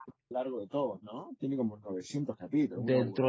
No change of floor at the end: No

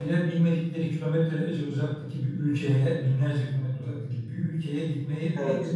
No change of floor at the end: Yes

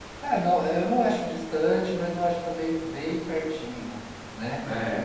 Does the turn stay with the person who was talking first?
Yes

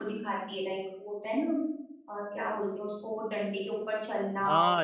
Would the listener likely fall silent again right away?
No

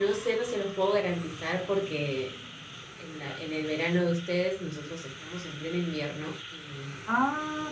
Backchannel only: No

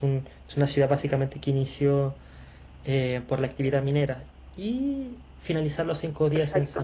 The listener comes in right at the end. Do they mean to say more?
No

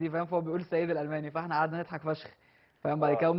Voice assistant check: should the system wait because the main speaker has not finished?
Yes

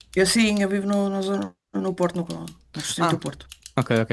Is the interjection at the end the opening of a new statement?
Yes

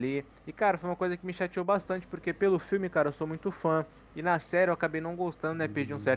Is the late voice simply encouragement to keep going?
Yes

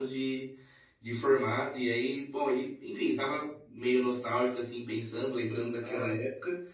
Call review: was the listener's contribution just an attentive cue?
Yes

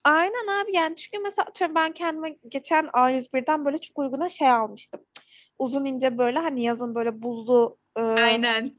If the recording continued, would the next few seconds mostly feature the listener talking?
No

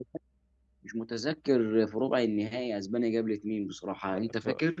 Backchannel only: No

